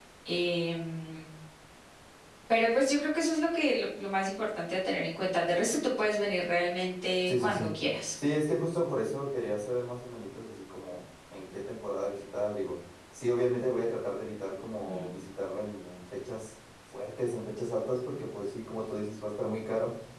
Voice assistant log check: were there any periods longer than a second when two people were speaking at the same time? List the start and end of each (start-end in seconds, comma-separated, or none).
none